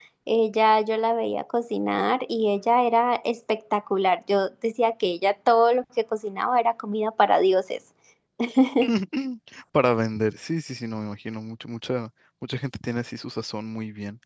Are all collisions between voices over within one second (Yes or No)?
Yes